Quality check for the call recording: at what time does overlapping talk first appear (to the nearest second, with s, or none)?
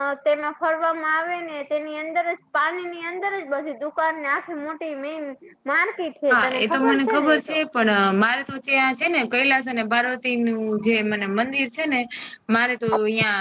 6 s